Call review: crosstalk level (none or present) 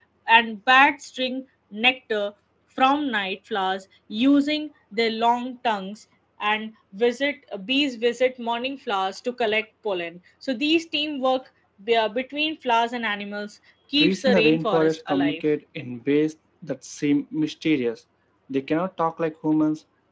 present